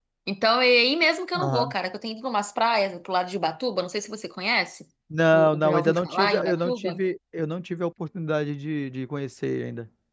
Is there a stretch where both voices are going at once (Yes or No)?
Yes